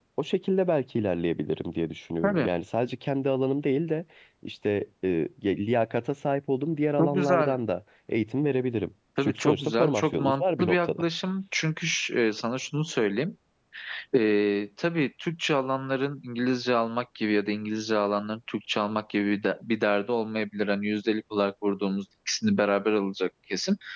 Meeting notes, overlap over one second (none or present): present